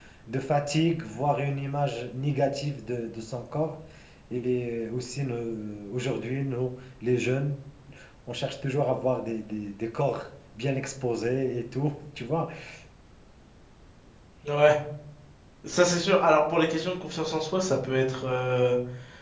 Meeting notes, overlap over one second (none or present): none